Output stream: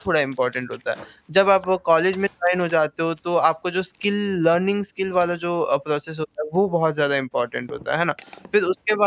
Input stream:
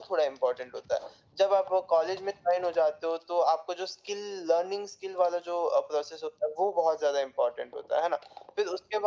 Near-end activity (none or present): none